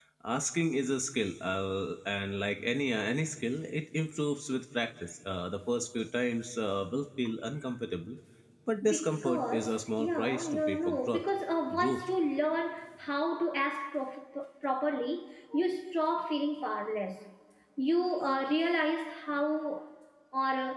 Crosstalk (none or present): present